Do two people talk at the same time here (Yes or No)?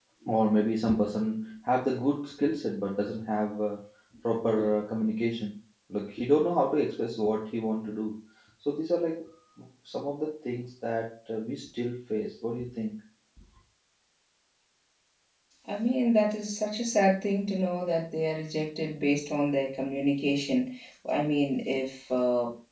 No